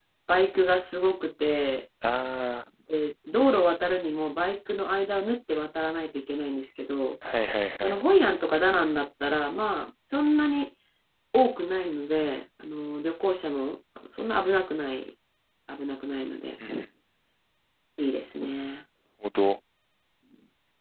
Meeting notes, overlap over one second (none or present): none